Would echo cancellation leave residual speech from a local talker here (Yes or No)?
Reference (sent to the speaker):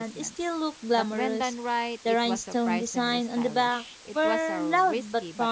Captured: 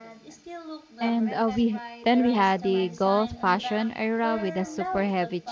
Yes